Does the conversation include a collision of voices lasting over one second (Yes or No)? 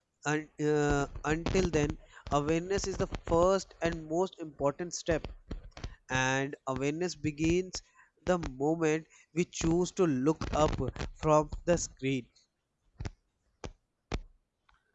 No